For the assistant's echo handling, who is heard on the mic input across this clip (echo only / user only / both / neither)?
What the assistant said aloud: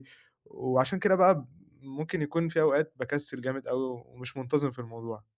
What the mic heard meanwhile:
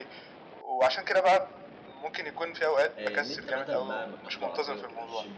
both